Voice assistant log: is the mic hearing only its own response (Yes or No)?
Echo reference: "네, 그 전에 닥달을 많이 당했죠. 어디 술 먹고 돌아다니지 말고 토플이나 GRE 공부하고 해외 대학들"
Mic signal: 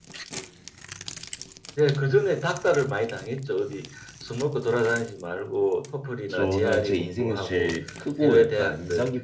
No